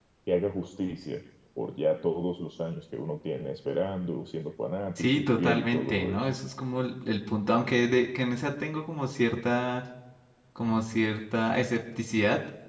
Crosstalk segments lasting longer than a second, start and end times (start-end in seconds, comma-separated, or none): 5.0-6.3